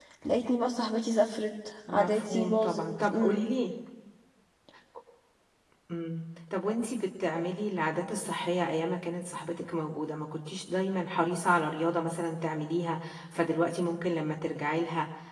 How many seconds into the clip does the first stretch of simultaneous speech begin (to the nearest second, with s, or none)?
2 s